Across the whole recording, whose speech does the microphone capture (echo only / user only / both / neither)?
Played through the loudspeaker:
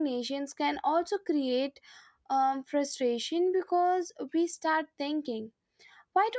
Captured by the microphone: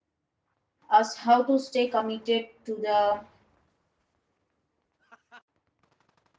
user only